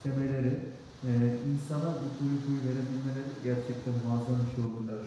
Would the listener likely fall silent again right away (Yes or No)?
Yes